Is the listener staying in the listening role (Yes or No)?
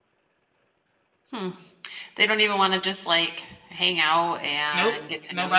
No